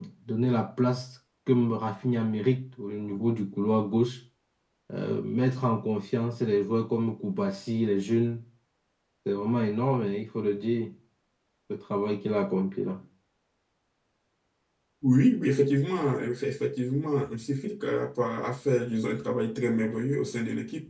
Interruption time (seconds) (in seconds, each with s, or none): none